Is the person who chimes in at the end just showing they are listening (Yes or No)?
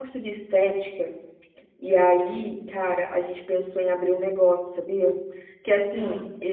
Yes